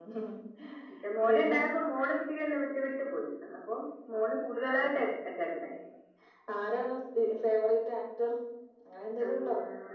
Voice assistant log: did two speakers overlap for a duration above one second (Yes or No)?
No